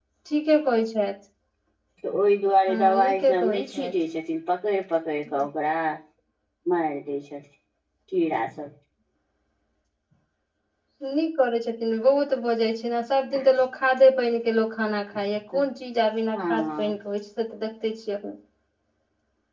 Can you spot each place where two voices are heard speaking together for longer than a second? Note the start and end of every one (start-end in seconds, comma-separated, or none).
2.7-3.9